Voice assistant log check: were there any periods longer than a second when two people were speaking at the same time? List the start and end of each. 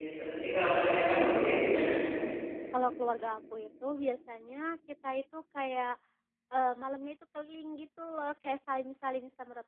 none

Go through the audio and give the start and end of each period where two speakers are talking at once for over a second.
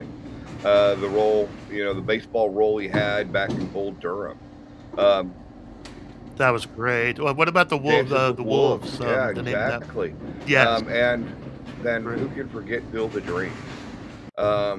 7.8-9.7

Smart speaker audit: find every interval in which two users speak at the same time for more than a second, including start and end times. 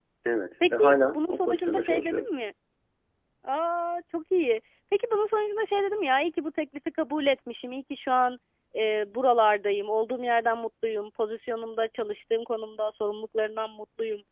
0.7-2.3

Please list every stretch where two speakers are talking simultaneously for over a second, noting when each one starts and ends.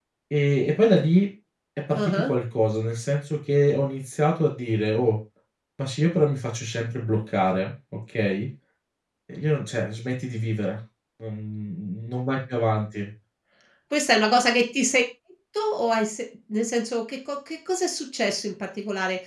none

